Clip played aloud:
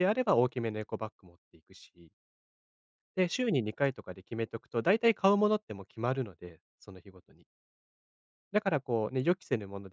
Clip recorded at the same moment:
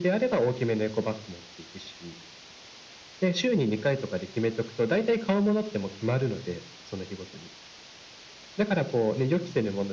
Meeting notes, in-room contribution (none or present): none